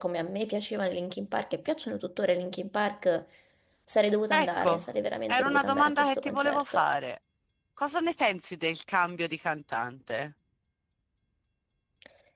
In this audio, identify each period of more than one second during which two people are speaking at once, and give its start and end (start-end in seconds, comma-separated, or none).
5.3-6.8